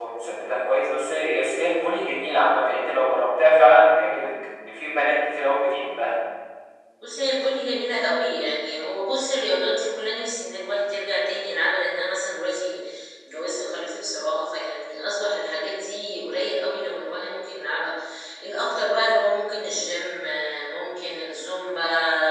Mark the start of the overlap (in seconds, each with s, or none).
none